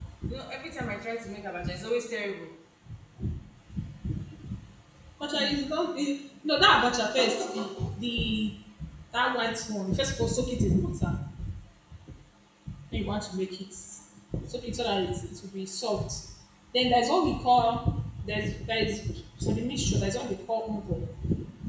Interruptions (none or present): none